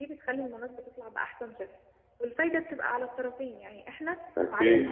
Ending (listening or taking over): listening